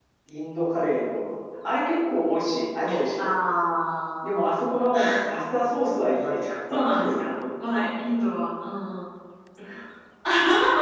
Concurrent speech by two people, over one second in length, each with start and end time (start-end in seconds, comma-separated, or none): none